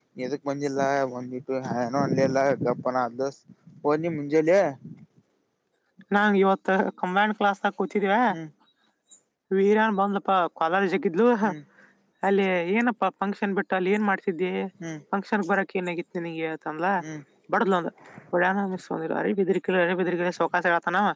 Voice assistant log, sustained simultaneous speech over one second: none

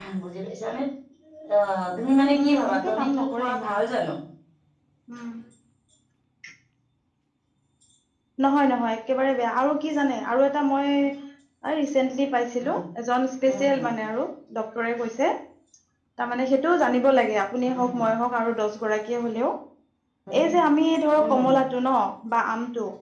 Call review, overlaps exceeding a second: present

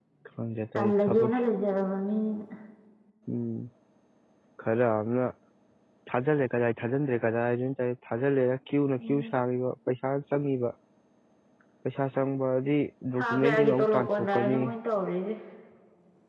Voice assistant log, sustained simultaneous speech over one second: present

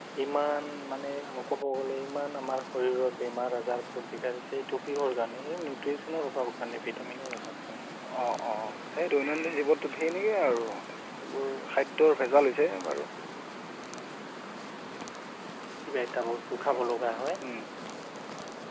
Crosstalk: none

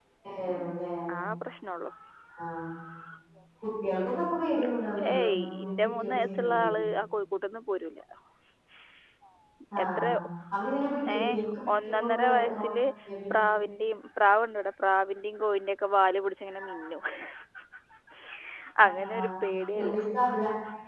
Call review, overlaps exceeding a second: present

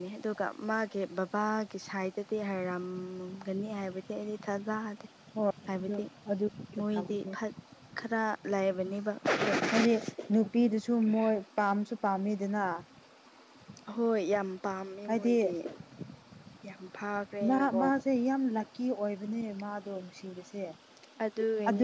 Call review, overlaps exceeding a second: none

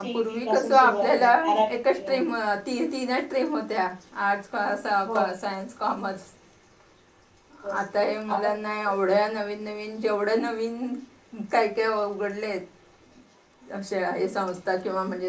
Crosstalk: present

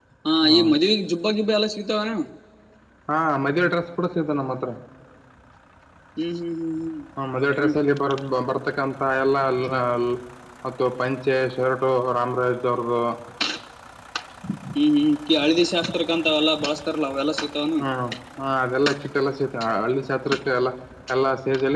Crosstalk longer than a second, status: none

